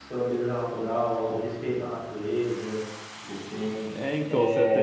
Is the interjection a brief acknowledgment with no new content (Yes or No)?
No